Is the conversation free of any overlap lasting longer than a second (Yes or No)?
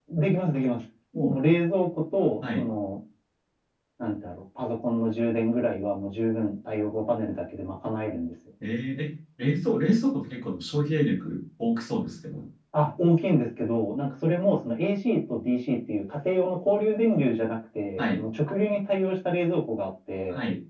Yes